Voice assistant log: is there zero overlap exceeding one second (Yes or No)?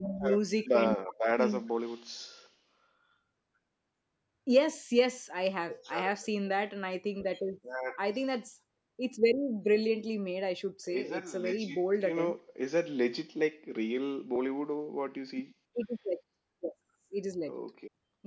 No